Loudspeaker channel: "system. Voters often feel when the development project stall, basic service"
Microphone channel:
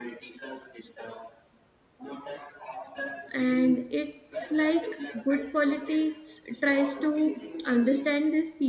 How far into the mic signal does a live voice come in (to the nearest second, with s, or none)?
3 s